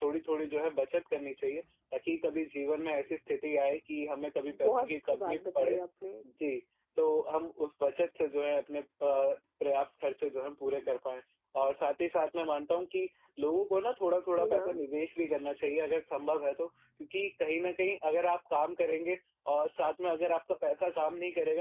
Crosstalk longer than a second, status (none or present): present